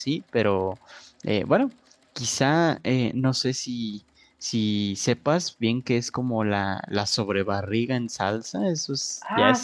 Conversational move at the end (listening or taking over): taking over